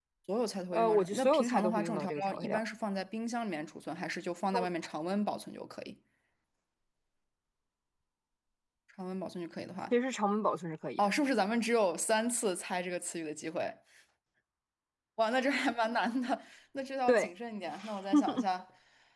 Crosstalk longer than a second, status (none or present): present